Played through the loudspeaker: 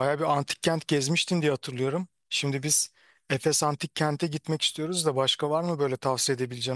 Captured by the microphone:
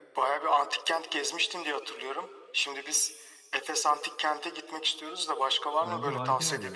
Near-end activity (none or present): present